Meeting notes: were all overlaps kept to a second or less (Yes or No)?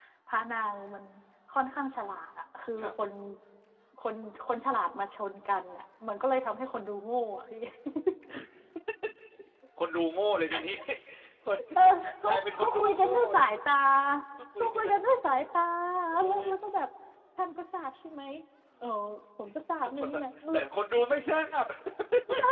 No